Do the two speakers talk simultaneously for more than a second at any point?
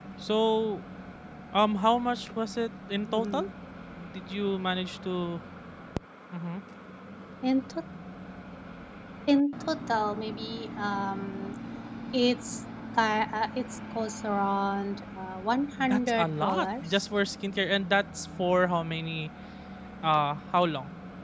Yes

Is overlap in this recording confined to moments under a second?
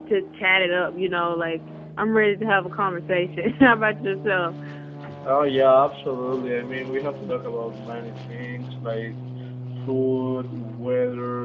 Yes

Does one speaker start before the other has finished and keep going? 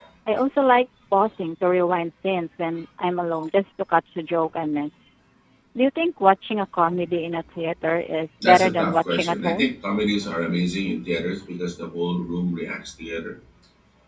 Yes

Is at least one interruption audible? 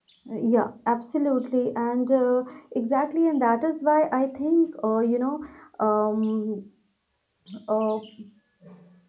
No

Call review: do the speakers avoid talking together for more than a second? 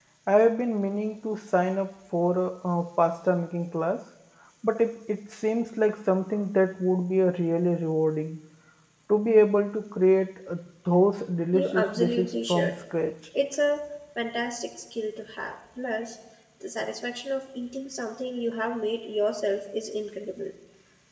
No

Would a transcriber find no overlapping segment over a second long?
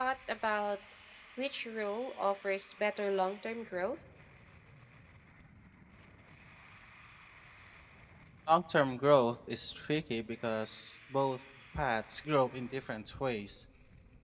Yes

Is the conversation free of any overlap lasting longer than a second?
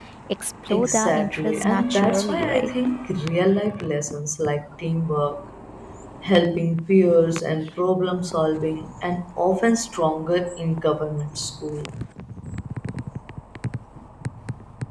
No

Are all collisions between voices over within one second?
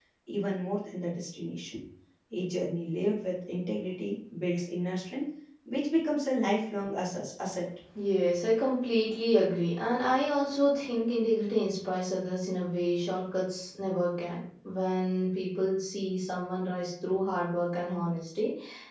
Yes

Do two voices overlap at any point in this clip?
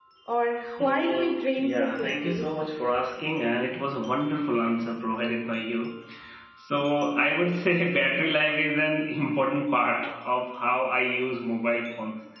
Yes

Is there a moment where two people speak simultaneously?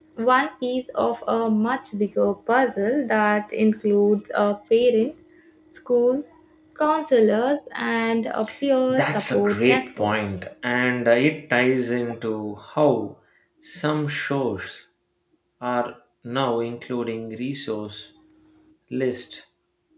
Yes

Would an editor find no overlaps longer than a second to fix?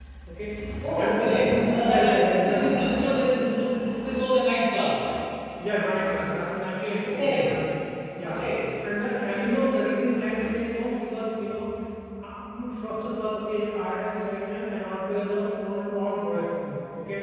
No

